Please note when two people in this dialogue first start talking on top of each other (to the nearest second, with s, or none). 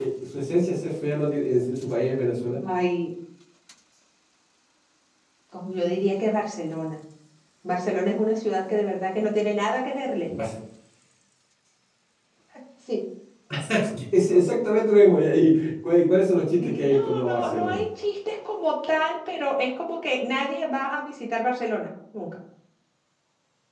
17 s